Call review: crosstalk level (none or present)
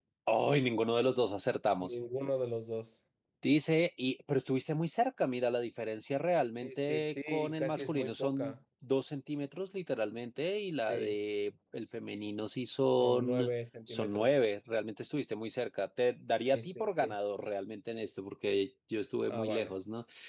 present